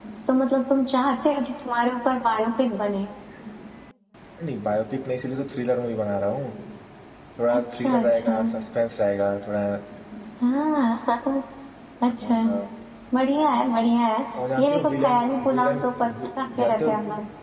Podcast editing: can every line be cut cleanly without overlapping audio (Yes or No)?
No